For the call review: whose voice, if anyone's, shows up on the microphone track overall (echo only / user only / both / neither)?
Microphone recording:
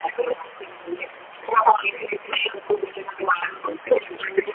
echo only